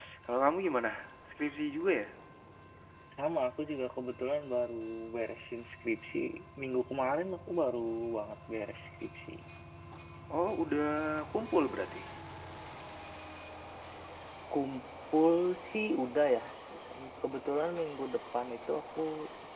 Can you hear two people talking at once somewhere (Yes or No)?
No